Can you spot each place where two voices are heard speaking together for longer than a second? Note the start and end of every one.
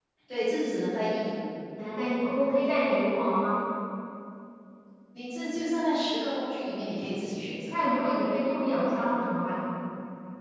none

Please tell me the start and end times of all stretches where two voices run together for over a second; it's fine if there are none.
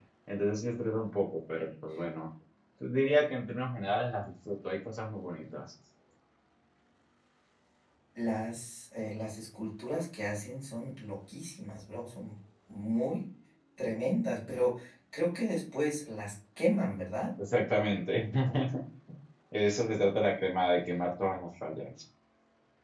none

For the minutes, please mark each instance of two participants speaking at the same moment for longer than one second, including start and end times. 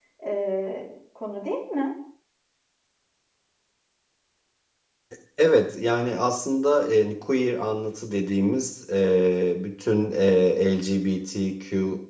none

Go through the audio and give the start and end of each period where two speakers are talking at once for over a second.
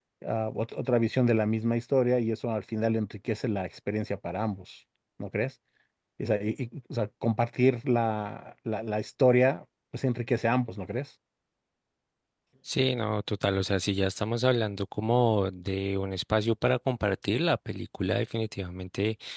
none

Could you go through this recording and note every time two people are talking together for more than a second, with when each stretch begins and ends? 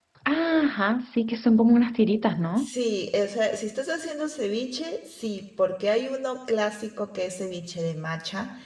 none

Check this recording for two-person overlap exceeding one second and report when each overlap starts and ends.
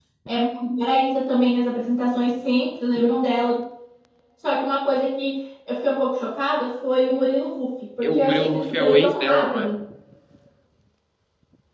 8.0-9.7

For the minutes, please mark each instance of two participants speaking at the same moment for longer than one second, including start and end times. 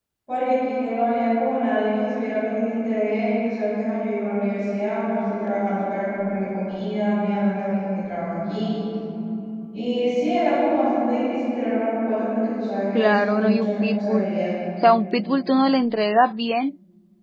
12.9-14.3

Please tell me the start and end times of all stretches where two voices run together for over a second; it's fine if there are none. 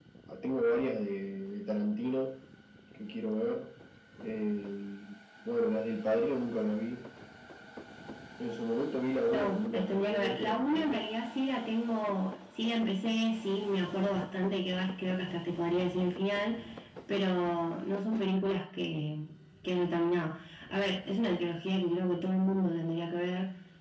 9.3-11.0

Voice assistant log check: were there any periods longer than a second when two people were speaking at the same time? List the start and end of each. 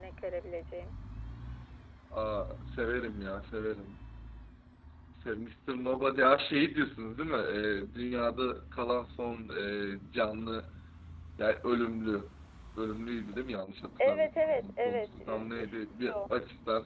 14.0-16.2

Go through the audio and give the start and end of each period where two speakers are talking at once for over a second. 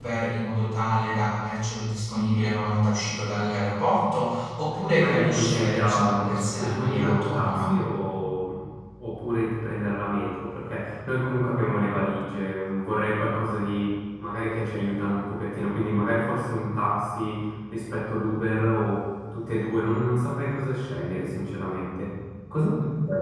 5.0-7.7

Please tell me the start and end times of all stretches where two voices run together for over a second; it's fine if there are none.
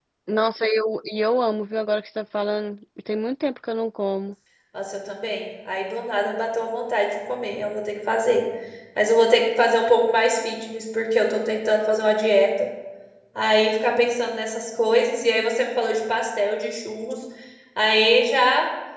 none

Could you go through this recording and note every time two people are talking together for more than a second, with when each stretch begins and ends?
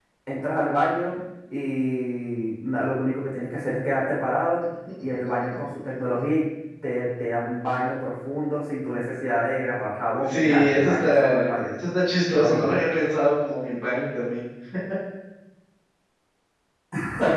10.2-11.7

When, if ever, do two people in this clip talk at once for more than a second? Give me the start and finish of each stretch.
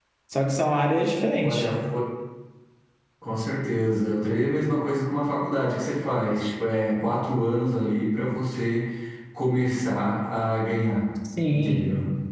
none

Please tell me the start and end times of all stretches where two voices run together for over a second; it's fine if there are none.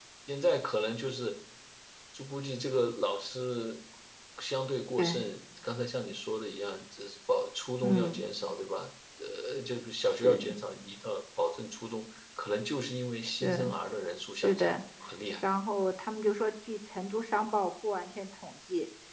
none

